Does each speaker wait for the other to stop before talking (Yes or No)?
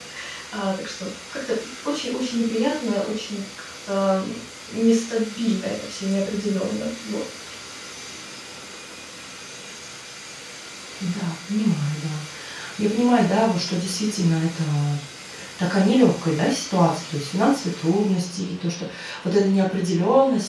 Yes